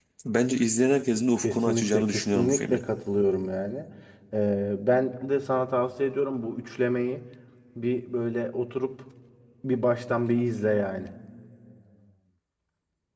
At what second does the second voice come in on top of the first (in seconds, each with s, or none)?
1.4 s